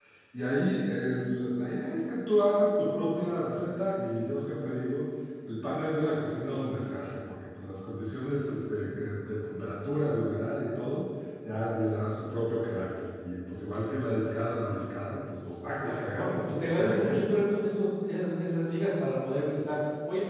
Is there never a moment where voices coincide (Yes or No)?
No